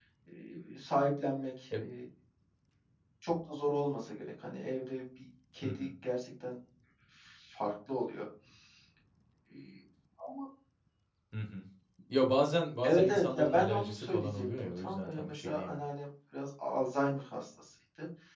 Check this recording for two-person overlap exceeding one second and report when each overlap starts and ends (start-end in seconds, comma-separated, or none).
12.8-15.8